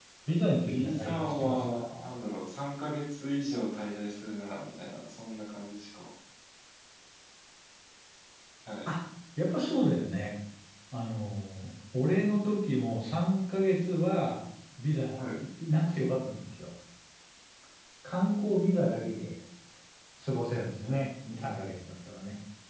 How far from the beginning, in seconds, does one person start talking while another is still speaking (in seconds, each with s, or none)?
0.7 s